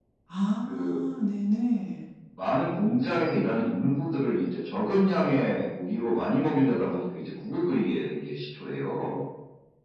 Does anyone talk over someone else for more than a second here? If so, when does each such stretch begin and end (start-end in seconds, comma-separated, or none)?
none